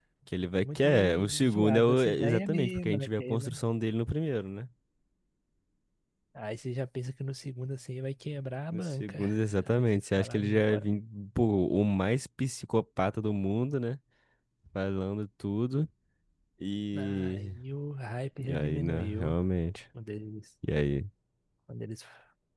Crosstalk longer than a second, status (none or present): present